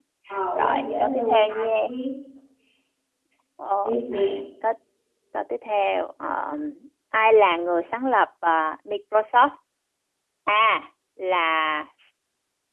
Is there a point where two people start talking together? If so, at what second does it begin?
0.6 s

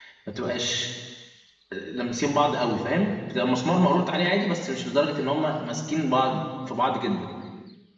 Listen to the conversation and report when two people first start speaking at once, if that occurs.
none

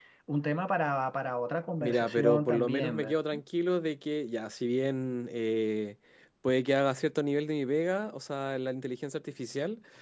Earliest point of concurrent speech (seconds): 1.8 s

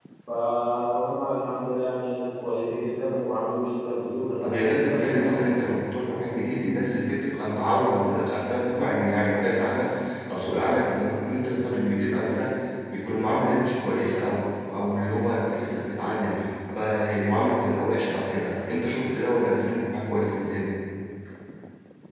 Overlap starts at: 4.4 s

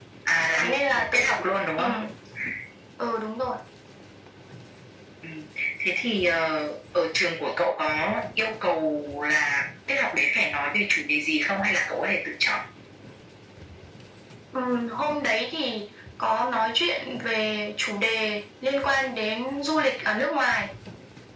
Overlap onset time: 0.6 s

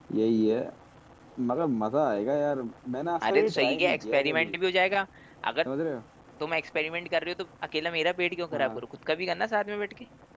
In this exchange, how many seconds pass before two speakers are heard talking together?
3.3 s

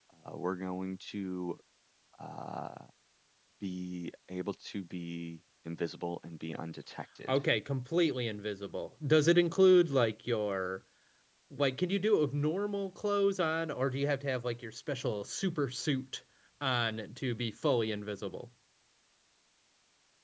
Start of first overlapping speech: none

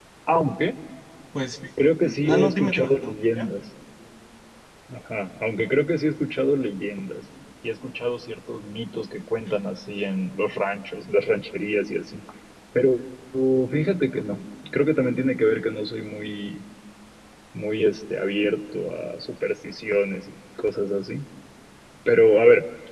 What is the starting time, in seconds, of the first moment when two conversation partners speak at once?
1.8 s

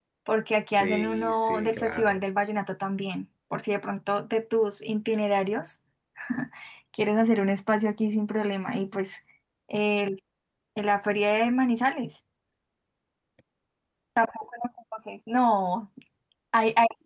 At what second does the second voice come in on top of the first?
0.8 s

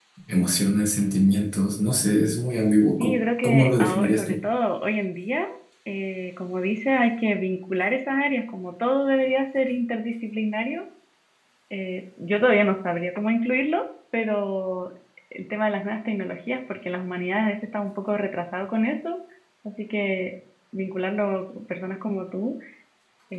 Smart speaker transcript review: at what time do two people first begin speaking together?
3.0 s

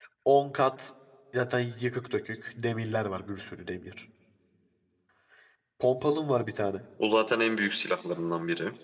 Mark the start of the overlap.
none

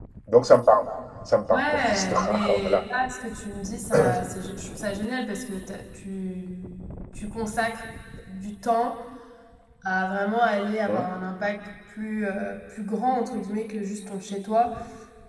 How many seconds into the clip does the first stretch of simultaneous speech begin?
1.5 s

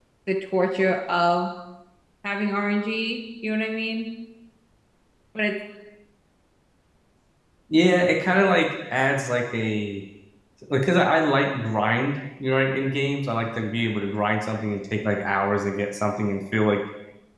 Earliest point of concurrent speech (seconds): none

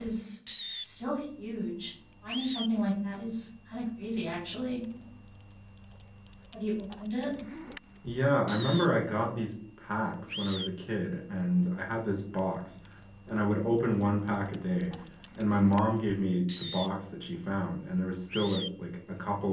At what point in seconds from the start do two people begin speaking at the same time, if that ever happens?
none

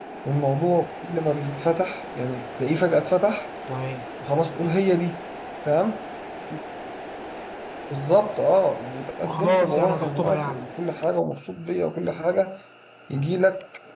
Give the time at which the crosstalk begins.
9.2 s

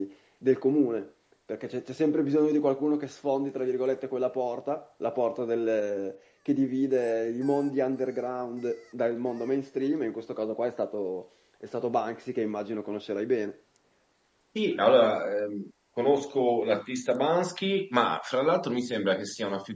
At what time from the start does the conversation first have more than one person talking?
none

